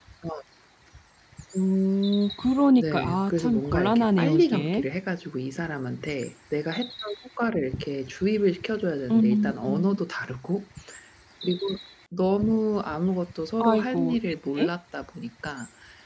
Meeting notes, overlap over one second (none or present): present